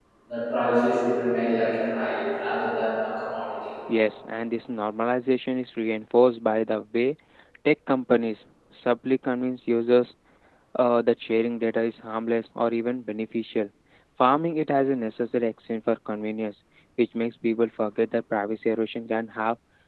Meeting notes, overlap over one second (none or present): none